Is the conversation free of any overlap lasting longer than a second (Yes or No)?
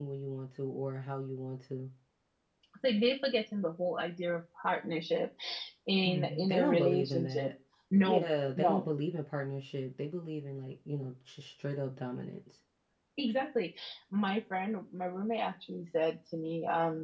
No